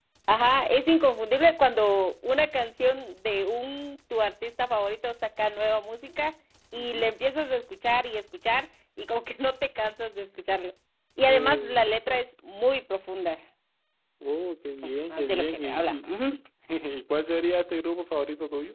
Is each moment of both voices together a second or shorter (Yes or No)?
No